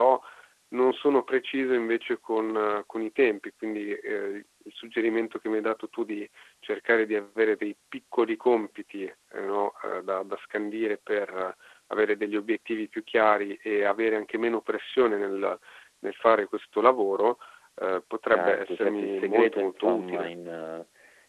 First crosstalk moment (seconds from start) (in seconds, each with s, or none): 18.3 s